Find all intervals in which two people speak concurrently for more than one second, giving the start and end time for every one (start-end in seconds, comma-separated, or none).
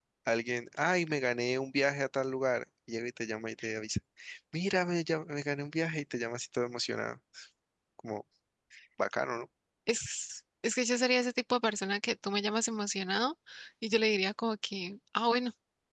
none